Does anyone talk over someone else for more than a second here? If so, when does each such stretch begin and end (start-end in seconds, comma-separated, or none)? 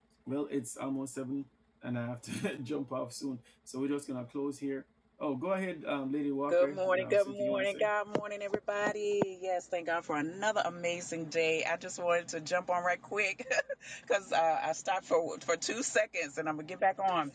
6.5-7.8